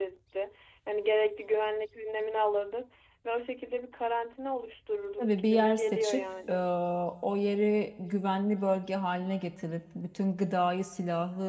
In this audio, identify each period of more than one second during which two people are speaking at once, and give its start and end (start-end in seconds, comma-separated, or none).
5.2-6.5